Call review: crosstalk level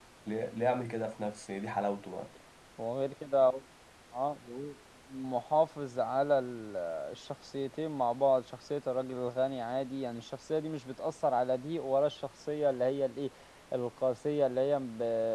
none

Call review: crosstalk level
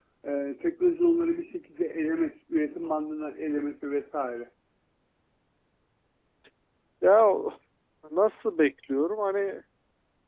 none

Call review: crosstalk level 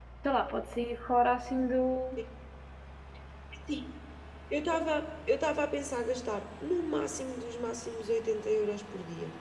none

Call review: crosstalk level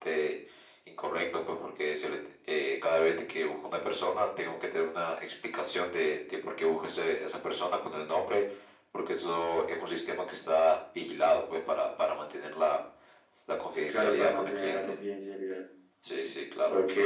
present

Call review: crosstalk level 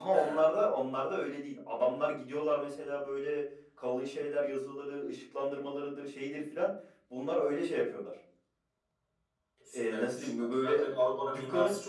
present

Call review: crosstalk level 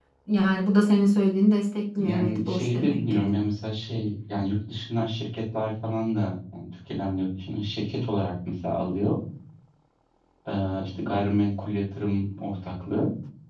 present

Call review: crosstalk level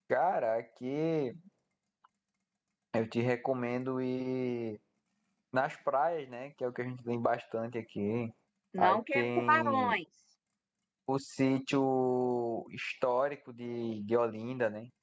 present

